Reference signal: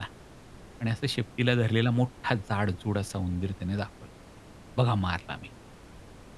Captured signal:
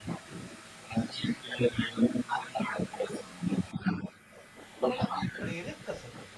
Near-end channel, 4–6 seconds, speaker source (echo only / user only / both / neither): both